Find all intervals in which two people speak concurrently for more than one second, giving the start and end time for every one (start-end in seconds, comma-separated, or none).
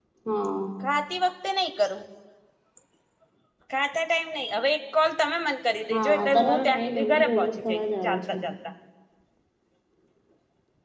5.9-8.3